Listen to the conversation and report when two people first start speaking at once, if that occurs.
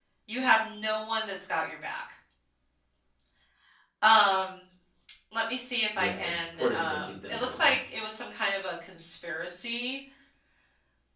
6.0 s

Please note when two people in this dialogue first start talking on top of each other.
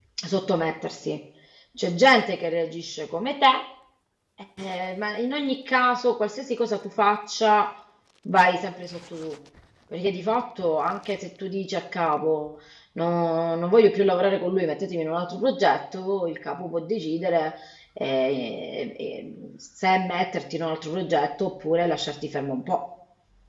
none

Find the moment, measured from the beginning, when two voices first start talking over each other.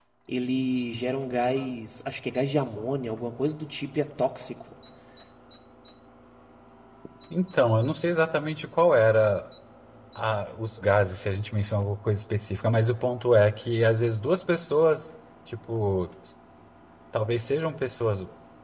none

